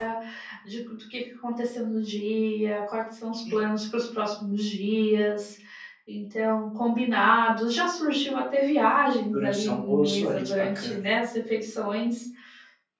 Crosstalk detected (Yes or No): Yes